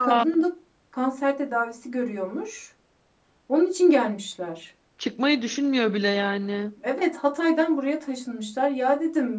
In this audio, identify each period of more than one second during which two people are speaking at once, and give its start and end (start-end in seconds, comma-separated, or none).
none